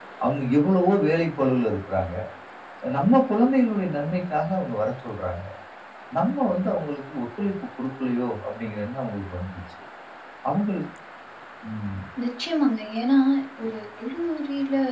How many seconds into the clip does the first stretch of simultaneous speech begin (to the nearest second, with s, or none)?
none